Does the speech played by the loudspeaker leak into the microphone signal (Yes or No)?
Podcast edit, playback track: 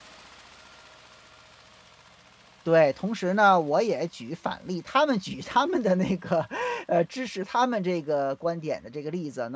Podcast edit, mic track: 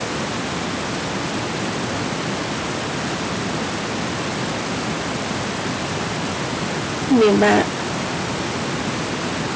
No